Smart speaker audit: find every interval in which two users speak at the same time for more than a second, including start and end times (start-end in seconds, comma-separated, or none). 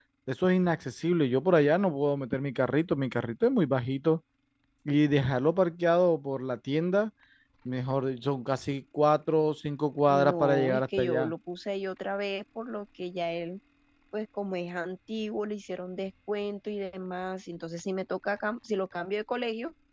10.1-11.3